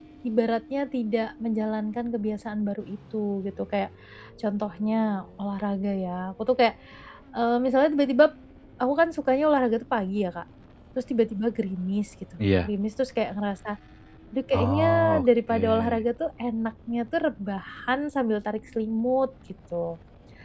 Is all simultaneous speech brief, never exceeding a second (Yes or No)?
No